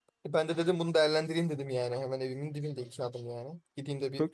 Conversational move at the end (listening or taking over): listening